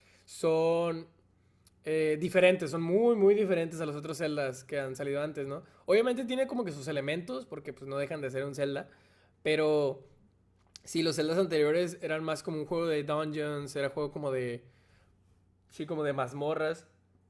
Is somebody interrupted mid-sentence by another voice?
No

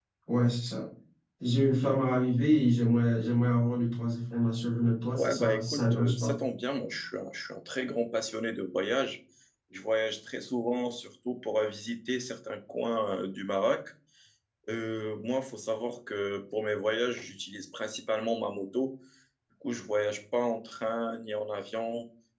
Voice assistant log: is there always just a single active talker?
No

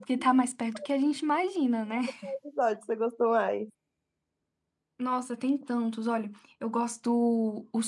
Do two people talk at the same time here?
No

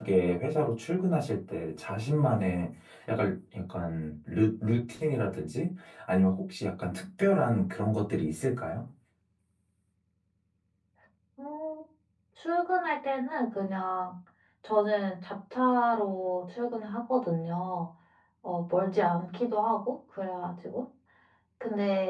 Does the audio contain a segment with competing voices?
No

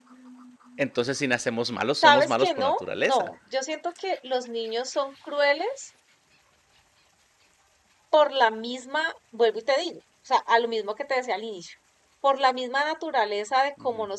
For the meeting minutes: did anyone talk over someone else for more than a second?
Yes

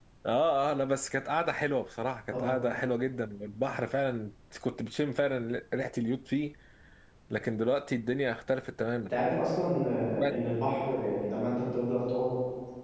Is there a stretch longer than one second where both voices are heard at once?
No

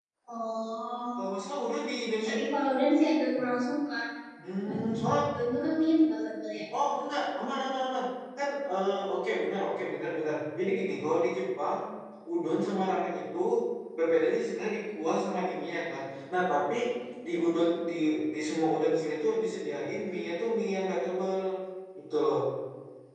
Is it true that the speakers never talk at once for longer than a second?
Yes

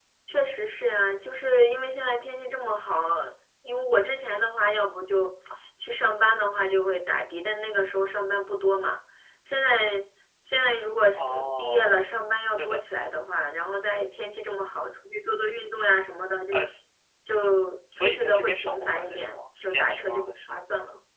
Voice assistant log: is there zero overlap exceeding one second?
No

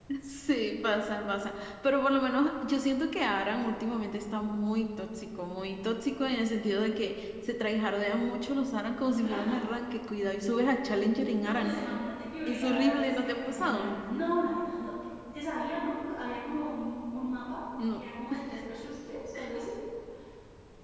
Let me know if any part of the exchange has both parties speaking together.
Yes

